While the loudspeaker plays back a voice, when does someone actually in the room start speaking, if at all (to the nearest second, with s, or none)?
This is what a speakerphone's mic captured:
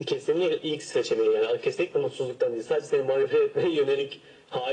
none